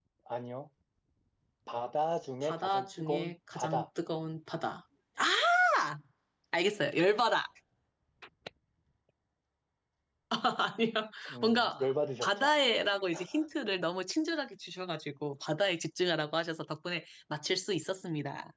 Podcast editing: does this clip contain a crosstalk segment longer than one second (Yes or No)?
Yes